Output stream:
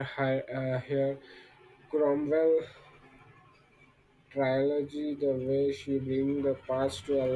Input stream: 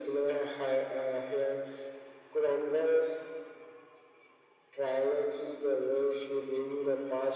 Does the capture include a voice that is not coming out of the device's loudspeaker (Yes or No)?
No